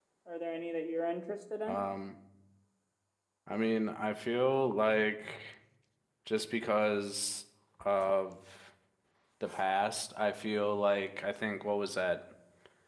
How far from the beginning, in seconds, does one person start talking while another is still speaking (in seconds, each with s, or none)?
none